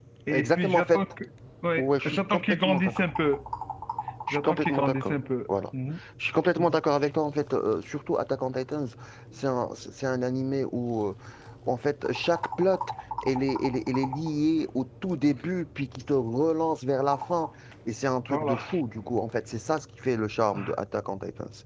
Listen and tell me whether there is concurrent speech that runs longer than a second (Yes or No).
Yes